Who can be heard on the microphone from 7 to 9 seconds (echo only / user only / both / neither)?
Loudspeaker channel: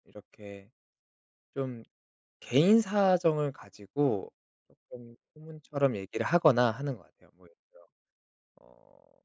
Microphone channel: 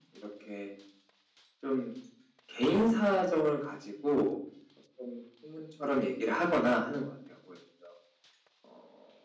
echo only